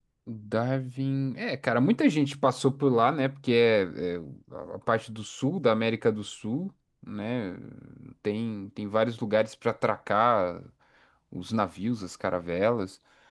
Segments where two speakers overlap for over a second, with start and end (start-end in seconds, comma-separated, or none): none